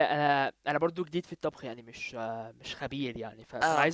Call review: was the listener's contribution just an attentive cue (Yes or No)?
Yes